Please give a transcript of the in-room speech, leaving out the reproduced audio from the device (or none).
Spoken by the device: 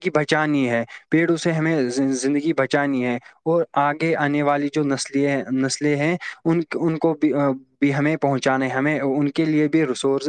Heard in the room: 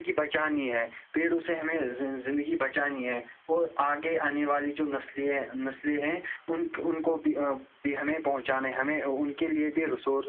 none